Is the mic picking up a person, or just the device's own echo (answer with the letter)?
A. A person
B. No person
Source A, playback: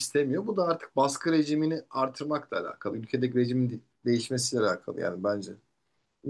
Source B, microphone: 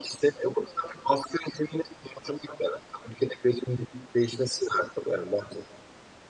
B